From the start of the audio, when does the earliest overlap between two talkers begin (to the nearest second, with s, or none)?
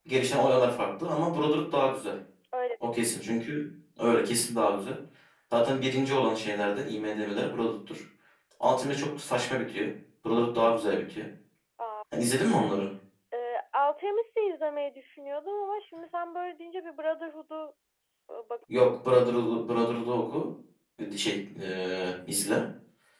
none